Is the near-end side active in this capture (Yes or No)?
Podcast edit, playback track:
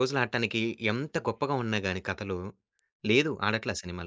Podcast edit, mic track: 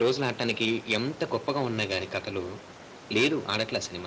No